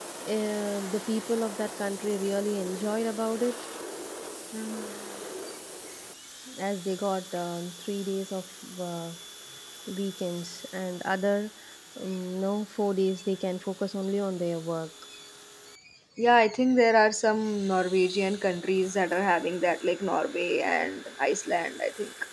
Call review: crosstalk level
none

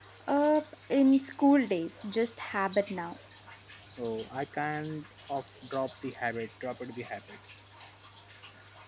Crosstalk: none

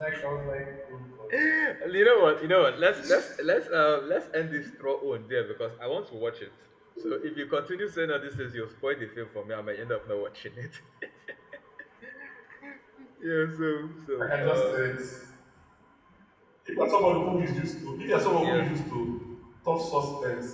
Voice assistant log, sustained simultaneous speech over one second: none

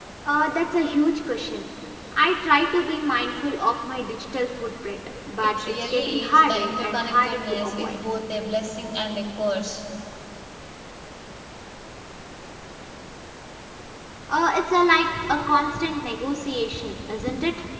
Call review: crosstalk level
present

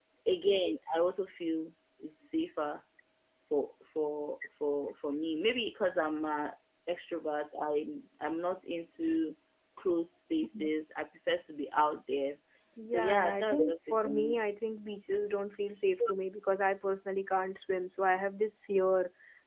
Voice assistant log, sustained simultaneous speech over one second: present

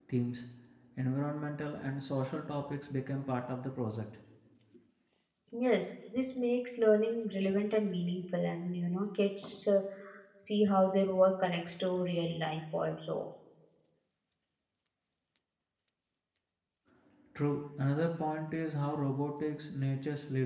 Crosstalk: none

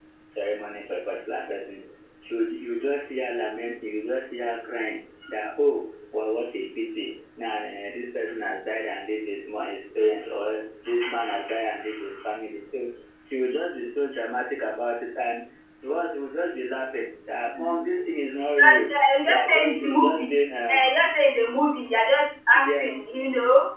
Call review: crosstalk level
present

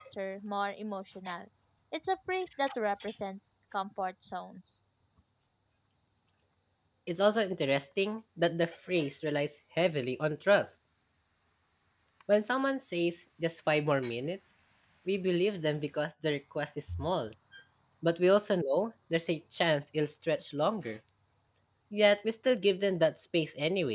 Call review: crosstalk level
none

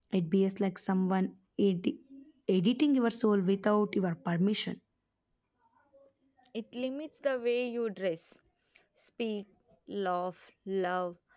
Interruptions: none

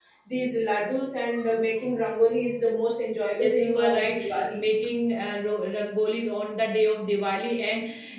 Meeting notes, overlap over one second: present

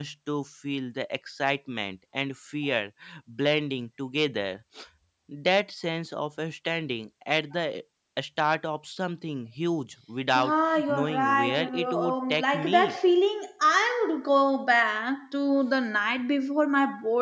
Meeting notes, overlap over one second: present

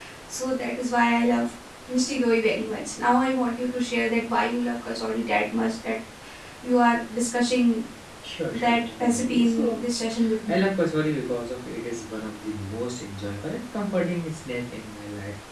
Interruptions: present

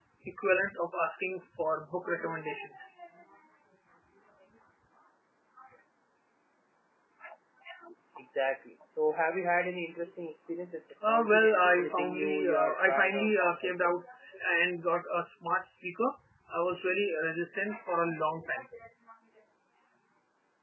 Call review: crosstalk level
present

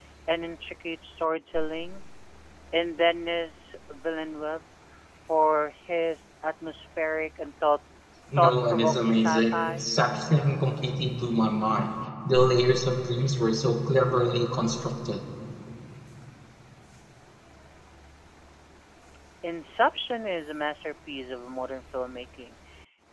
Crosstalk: present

